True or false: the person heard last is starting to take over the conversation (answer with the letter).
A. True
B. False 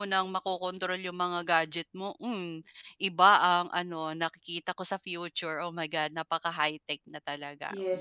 A